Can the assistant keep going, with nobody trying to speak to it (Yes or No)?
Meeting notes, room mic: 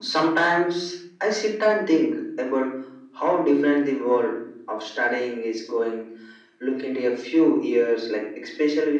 Yes